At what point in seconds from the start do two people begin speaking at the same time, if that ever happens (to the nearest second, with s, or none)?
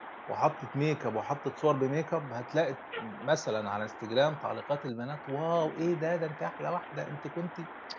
none